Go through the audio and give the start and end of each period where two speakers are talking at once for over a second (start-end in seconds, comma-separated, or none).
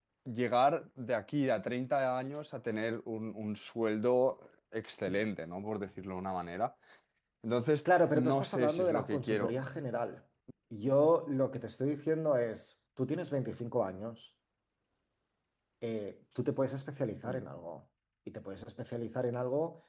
8.1-9.5